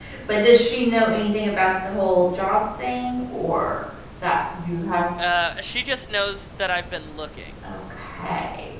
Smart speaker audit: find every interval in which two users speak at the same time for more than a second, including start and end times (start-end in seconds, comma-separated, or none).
none